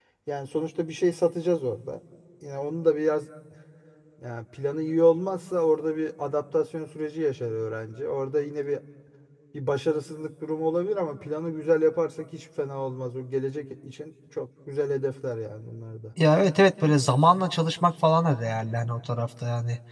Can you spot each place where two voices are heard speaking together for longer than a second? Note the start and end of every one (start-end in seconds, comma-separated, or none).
none